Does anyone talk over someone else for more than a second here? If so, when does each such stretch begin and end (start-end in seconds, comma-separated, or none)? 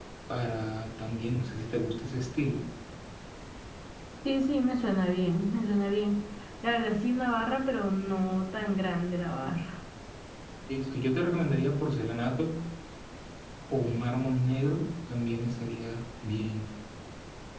none